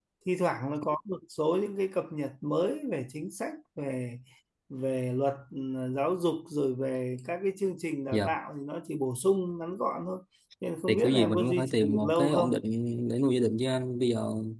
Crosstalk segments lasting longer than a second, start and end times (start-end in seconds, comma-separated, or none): 10.9-12.5